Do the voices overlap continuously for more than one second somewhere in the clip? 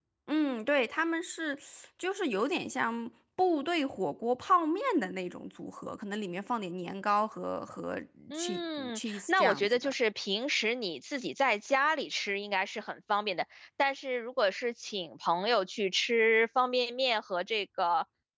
Yes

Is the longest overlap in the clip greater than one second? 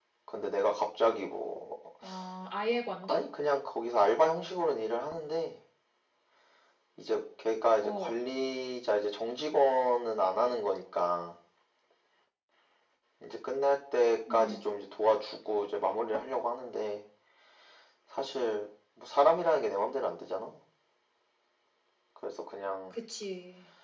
No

